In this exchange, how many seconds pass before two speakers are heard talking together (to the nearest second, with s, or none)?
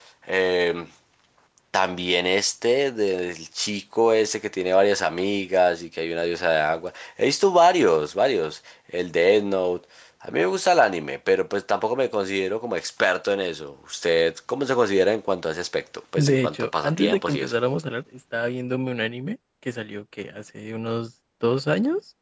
16 s